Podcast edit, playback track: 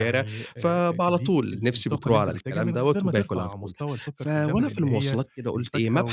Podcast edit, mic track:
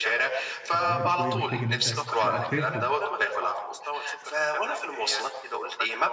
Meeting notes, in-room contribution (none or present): present